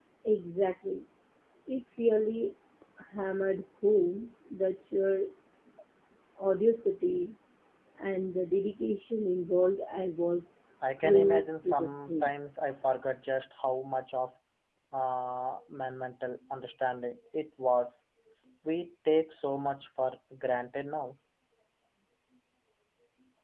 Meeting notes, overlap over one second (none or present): present